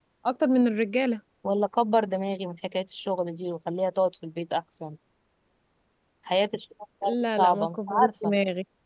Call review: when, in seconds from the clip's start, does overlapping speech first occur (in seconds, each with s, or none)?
7.0 s